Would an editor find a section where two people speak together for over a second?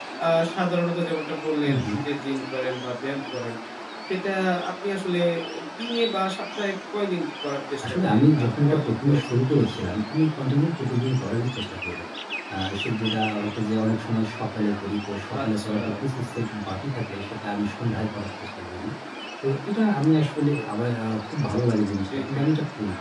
Yes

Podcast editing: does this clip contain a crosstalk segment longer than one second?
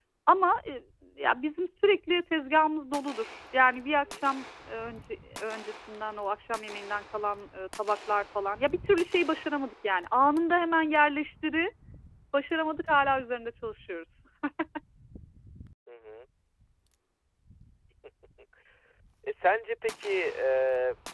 No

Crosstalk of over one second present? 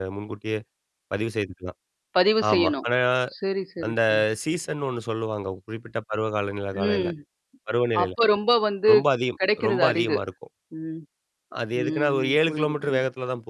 Yes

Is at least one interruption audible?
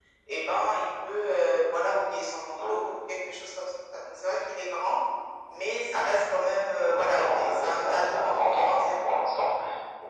Yes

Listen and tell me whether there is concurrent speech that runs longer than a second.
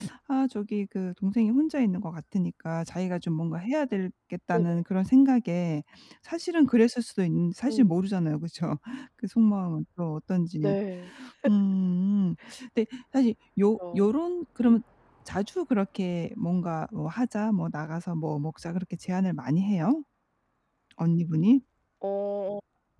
No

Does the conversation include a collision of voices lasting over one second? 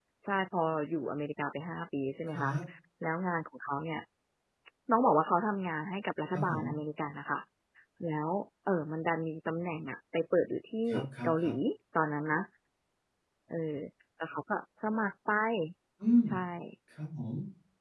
No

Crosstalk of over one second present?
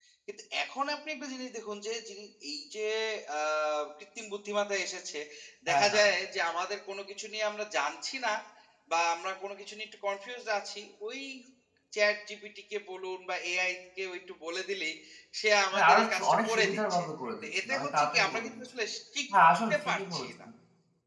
Yes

